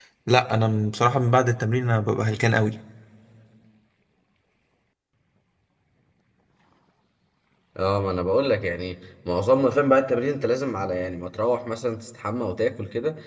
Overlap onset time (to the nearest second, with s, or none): none